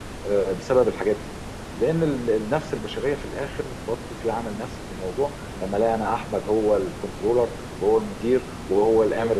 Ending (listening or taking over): listening